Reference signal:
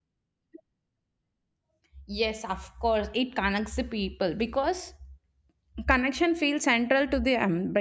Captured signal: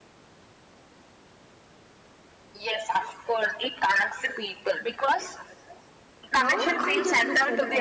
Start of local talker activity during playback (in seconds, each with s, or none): 6.3 s